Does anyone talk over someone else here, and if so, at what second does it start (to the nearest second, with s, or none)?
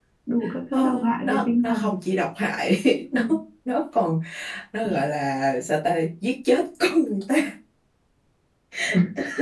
1 s